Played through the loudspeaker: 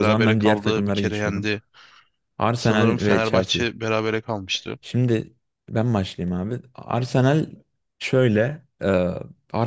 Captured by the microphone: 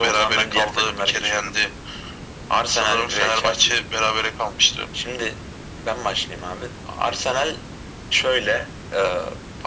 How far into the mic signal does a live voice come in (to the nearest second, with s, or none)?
none